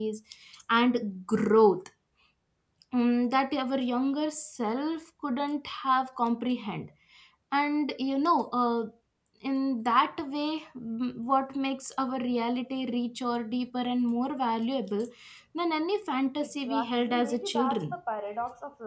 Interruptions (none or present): present